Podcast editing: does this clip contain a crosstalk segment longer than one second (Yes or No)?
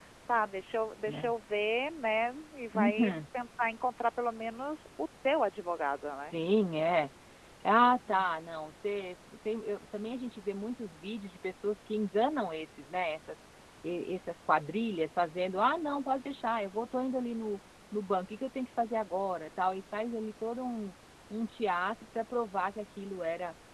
No